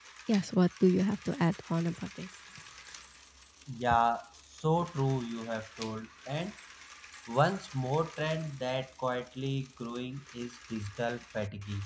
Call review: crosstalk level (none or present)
none